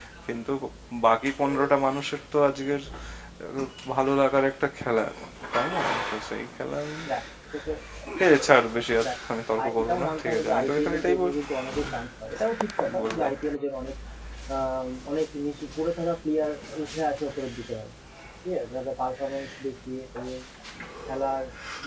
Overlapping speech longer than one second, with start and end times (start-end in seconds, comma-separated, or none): 9.6-11.3